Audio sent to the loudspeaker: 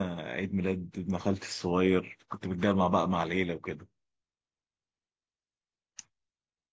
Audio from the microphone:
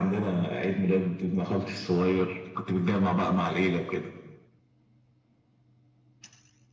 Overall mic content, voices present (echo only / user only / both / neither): echo only